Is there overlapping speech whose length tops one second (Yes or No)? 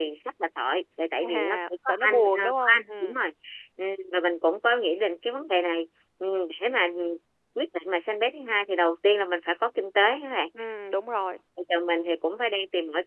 Yes